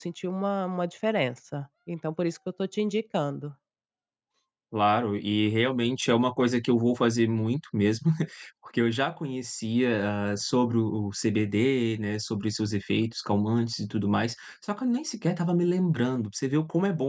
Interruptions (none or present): none